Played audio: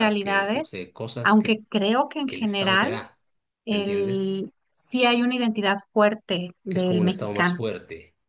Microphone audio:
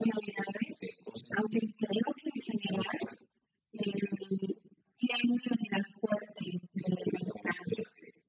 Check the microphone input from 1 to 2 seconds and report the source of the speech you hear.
echo only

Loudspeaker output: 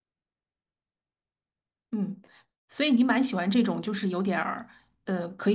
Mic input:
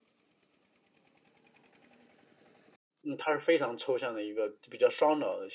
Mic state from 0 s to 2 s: neither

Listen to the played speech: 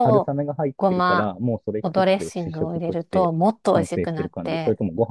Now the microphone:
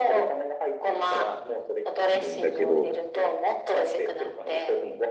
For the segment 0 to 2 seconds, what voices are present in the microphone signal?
echo only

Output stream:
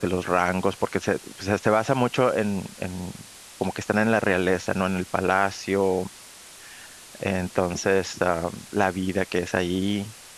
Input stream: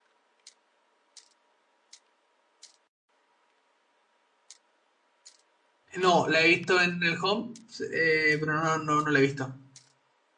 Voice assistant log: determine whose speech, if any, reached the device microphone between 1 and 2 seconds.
neither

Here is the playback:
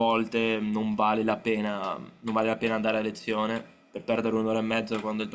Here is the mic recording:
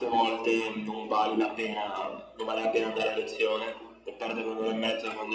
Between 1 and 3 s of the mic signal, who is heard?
echo only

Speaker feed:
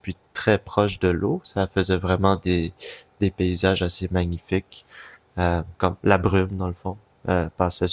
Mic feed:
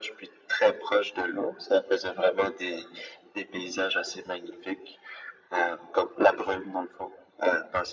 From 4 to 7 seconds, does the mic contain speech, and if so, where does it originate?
echo only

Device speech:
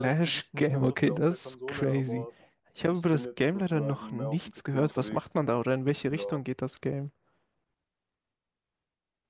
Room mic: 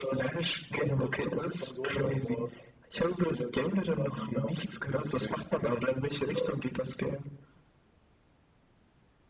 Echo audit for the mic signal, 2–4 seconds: echo only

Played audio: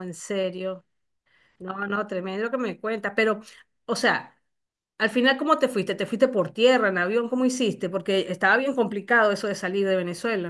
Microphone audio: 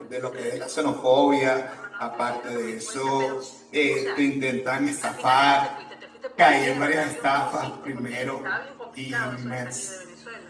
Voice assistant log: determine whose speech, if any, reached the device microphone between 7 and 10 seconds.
both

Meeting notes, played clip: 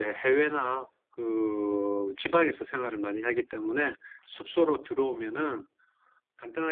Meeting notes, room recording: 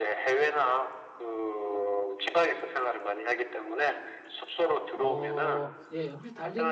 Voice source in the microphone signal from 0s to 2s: echo only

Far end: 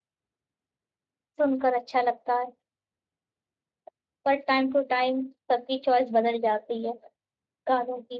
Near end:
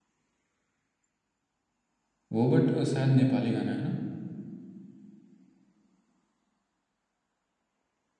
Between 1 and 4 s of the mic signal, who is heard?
user only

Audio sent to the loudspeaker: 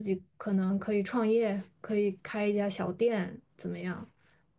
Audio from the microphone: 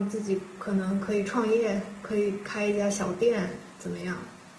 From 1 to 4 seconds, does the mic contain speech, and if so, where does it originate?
echo only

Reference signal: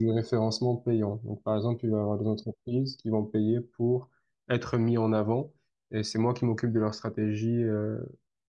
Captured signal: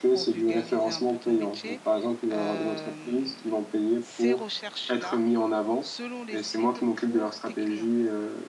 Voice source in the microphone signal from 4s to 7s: both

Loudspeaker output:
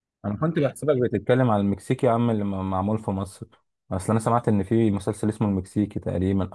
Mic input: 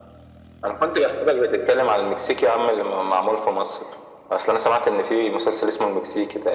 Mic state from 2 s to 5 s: echo only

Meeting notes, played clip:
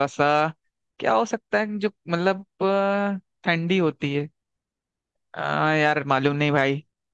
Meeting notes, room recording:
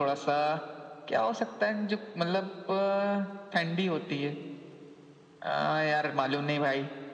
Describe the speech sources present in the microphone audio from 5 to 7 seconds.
echo only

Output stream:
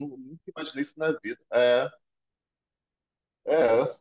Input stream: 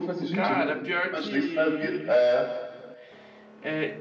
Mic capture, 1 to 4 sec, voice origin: both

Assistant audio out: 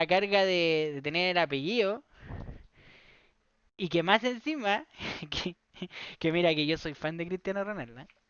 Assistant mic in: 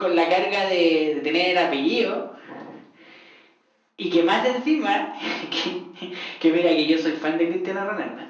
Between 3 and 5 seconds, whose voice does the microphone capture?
echo only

